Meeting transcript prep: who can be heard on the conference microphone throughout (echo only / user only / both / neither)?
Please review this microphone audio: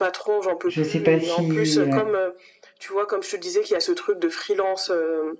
both